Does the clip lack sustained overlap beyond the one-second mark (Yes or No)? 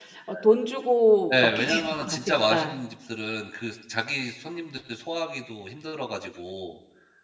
No